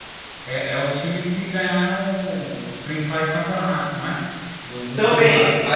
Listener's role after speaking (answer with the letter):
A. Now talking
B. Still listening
A